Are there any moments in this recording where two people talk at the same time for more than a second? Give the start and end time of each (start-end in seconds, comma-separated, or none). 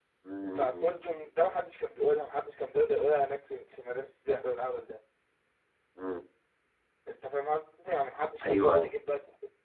none